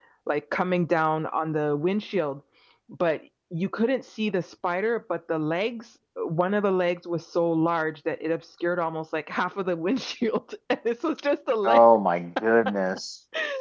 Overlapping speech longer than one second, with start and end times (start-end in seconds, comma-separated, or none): none